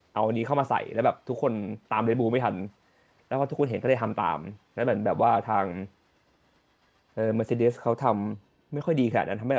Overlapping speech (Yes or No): No